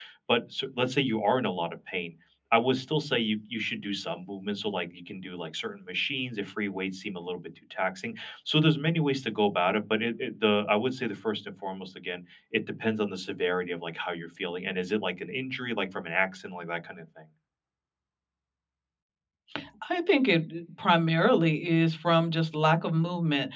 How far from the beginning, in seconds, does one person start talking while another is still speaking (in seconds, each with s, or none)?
none